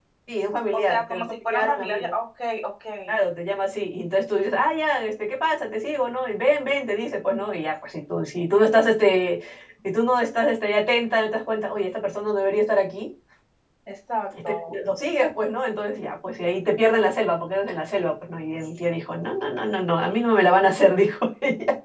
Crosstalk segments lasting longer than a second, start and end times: 0.7-2.1

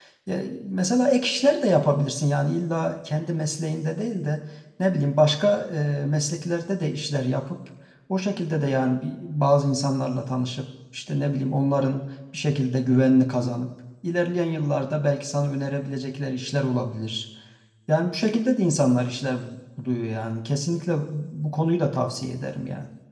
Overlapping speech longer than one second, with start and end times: none

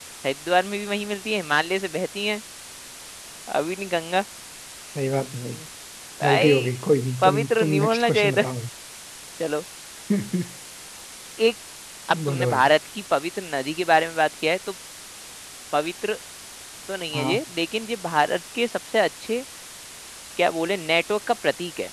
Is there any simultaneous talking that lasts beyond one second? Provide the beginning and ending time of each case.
7.2-8.4

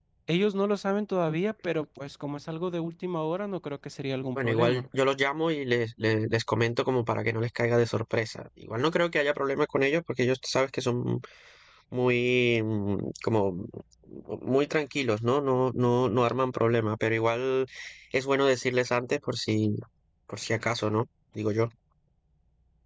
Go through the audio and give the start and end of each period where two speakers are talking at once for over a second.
none

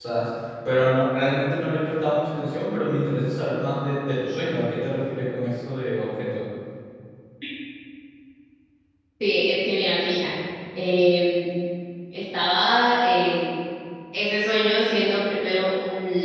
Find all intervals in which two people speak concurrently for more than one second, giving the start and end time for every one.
none

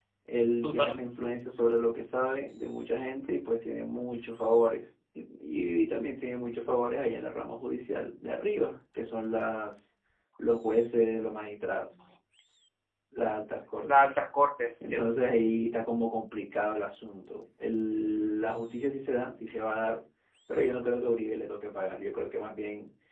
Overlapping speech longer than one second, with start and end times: none

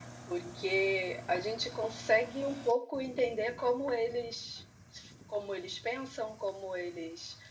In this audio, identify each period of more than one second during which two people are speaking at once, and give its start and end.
none

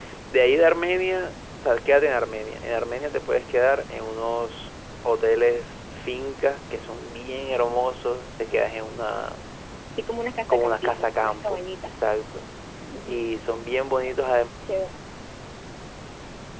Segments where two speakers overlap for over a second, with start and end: 10.5-11.9

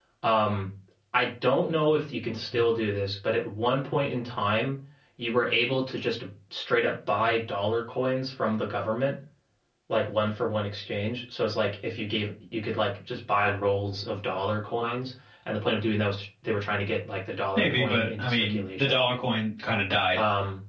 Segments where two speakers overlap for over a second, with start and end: 17.6-19.0

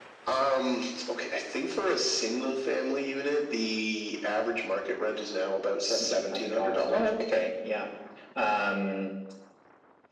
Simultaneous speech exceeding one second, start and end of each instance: 5.8-7.1

